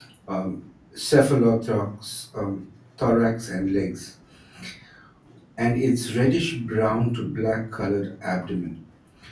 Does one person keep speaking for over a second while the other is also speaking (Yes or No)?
No